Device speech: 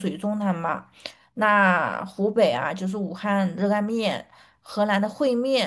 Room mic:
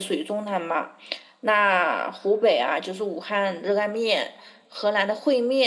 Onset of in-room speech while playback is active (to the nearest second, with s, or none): none